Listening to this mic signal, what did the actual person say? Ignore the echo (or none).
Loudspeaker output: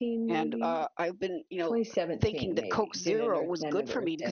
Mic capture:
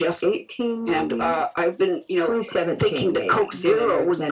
none